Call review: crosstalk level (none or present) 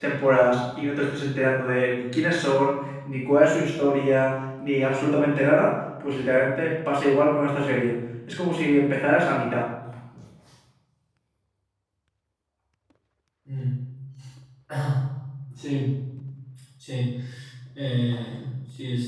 none